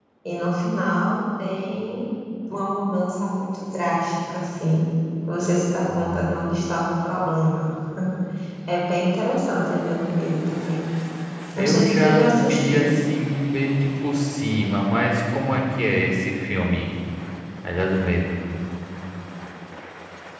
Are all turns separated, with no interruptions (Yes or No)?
No